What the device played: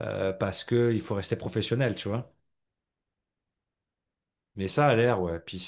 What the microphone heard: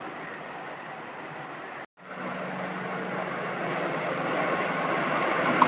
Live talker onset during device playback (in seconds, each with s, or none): none